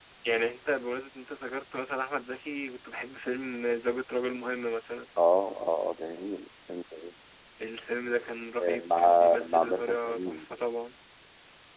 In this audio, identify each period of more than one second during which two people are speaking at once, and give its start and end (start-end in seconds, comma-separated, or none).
8.6-10.4